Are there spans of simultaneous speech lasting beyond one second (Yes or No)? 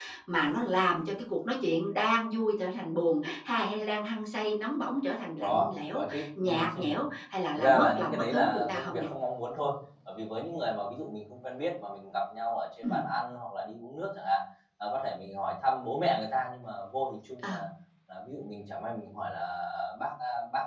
Yes